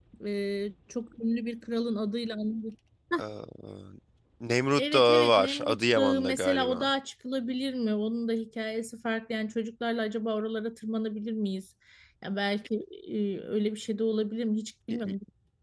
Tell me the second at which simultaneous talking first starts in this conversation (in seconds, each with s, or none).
4.8 s